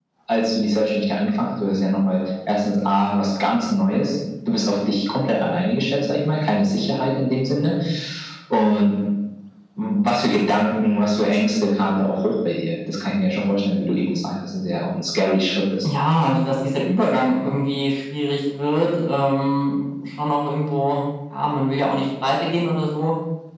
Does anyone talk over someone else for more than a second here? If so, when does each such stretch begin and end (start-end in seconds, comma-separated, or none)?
none